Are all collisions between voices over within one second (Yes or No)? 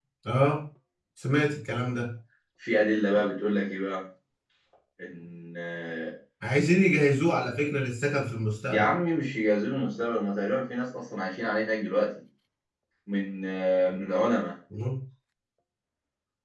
Yes